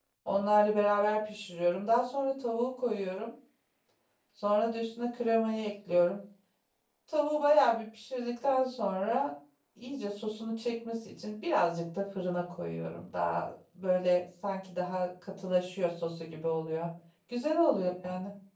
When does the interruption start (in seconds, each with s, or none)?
none